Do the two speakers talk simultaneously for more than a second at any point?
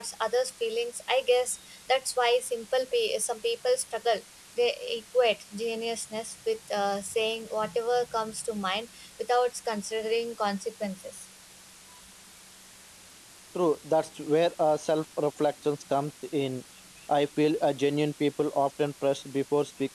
No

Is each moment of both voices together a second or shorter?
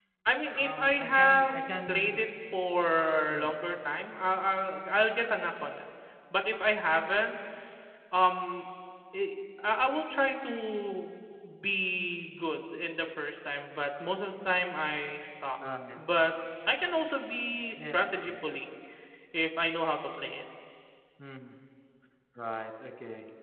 No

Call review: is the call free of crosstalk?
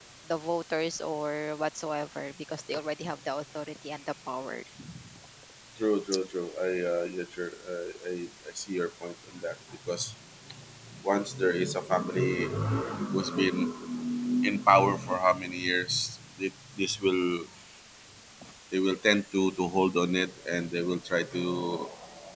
Yes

